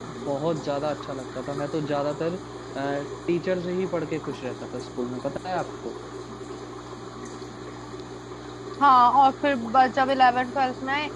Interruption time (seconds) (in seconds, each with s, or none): none